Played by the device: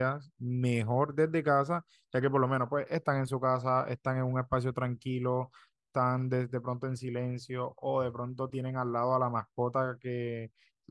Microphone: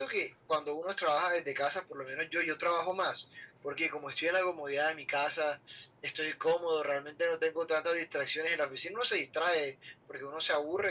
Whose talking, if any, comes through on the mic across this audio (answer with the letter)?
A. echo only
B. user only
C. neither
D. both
B